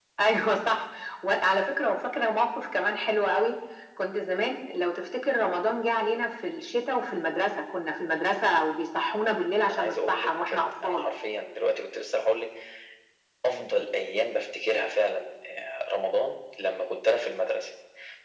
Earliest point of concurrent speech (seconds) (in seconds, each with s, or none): 9.7 s